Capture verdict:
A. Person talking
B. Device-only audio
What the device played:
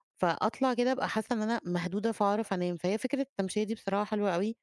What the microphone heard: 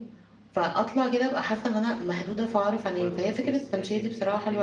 A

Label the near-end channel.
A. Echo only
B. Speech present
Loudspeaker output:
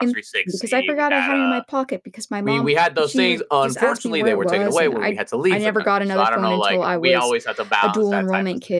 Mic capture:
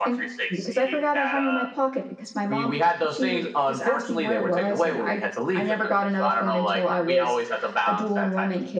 A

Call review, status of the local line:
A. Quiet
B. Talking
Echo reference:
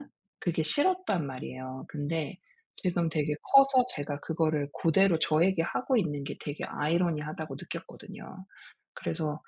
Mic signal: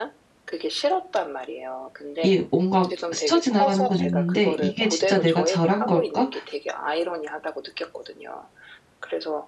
B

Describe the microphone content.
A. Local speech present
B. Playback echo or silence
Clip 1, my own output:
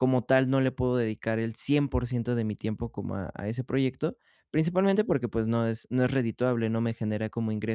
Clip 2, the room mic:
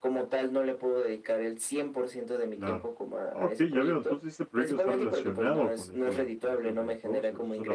A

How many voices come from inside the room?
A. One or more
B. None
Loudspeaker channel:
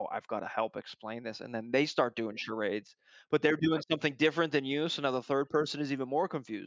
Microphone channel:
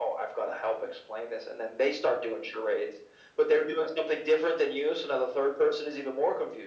B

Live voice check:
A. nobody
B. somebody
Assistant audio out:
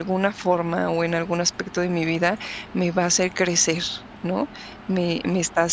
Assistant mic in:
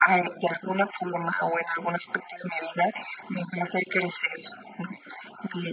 A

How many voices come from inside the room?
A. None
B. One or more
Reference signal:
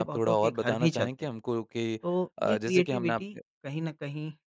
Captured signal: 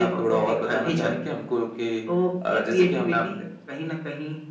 A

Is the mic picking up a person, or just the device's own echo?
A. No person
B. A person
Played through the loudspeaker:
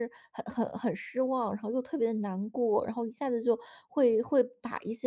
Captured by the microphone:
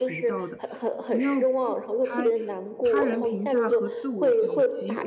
B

